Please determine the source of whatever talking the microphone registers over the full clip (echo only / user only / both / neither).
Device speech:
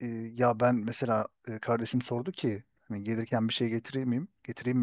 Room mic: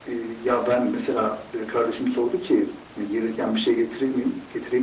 echo only